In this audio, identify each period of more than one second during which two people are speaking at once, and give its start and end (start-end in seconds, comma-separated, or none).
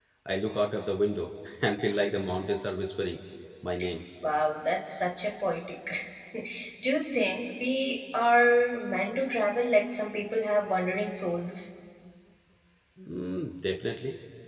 none